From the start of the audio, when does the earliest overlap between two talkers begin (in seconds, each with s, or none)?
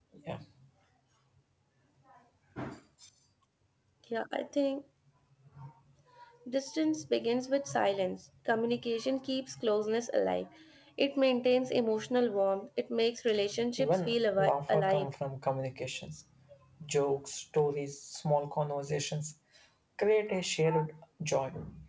13.8 s